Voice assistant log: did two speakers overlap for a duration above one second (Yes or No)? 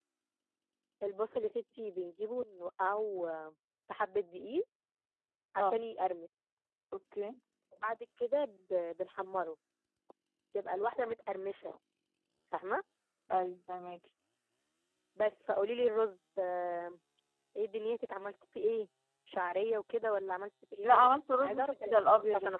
Yes